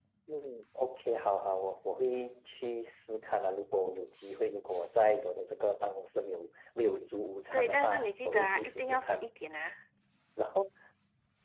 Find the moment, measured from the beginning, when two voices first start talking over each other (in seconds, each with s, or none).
7.5 s